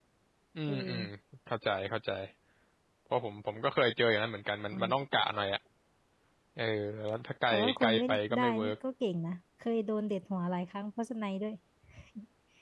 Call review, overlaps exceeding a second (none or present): present